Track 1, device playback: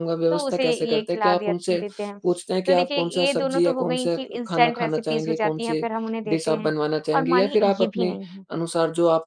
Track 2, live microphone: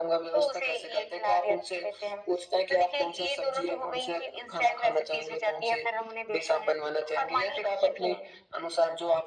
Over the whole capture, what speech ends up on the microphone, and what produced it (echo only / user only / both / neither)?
echo only